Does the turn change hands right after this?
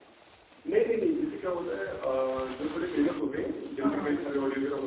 No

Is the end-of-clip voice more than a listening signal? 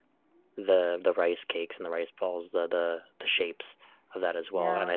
No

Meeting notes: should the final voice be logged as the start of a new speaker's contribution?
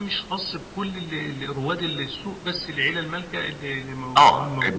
Yes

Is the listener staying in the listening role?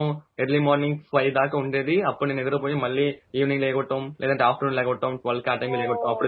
Yes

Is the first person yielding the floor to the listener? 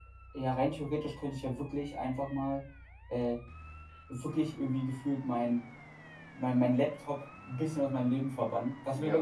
No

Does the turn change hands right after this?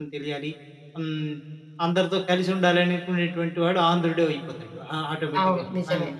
No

